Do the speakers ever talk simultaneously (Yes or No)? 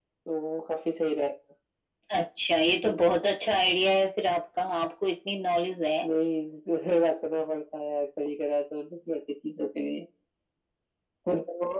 No